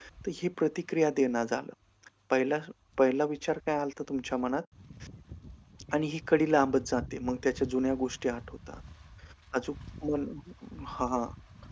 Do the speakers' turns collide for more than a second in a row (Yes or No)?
No